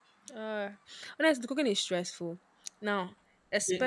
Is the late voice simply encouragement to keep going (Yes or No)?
No